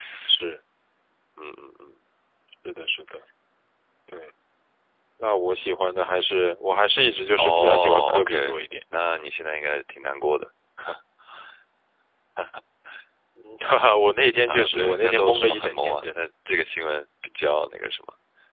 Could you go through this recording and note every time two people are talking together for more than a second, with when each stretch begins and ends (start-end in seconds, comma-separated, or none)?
7.4-8.6, 14.5-16.1